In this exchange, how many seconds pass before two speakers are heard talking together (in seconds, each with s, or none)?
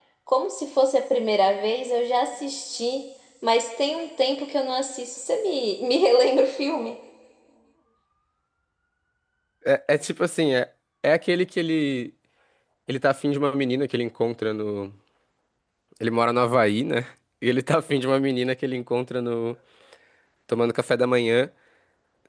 none